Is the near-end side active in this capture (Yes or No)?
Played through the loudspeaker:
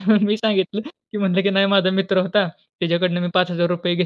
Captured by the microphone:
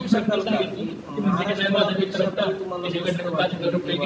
Yes